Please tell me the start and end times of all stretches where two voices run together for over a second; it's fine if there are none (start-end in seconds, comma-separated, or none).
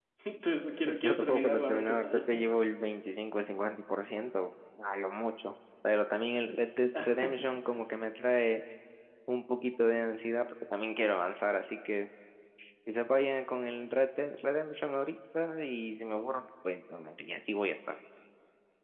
0.8-2.2